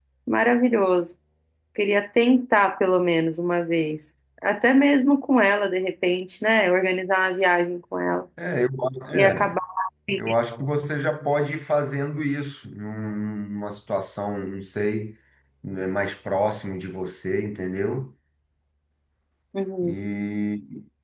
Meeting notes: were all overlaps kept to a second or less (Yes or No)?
Yes